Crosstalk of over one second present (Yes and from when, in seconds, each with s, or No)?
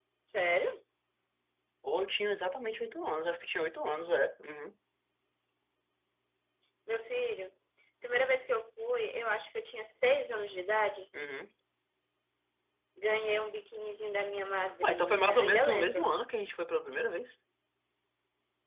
Yes, from 14.8 s